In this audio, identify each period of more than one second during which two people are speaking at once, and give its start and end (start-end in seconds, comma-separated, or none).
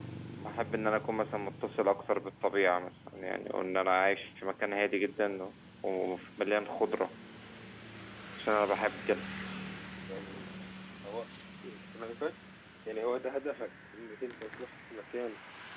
none